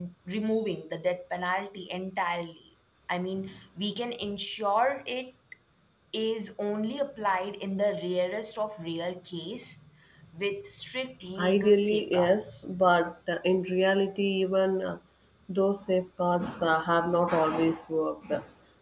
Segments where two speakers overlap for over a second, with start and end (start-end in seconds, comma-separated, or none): 11.4-12.7